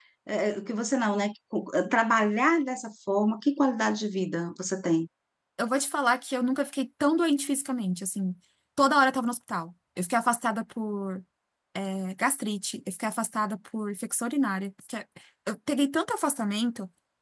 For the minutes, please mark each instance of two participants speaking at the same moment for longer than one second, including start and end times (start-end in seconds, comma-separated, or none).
none